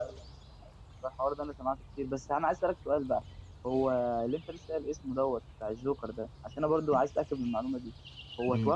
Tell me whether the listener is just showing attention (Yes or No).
Yes